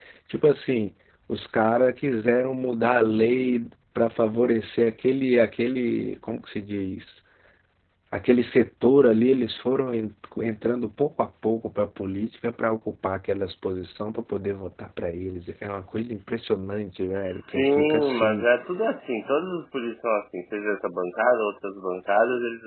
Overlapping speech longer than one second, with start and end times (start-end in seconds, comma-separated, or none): 17.2-18.4